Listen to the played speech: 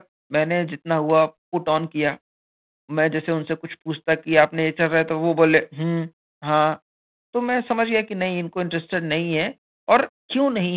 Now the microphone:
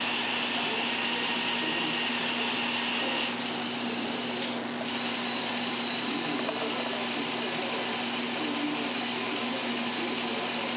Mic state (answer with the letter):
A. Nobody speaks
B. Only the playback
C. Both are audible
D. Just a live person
A